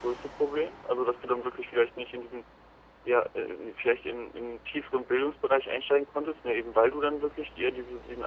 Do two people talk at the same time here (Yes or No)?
No